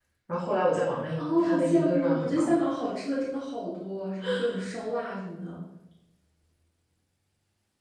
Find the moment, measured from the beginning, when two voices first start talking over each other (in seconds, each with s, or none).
1.2 s